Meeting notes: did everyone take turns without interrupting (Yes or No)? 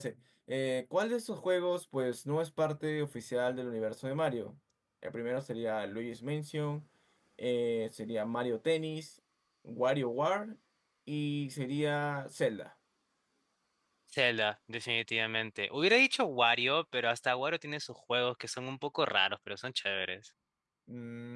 Yes